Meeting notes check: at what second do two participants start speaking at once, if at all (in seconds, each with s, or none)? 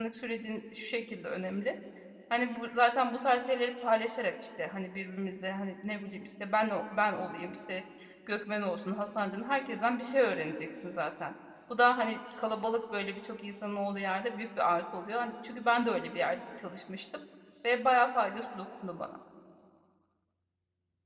none